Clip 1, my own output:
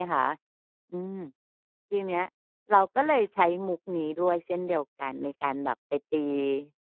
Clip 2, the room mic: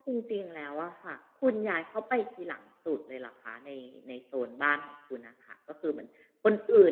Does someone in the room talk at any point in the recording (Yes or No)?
Yes